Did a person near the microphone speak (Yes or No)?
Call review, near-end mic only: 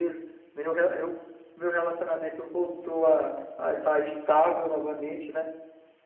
No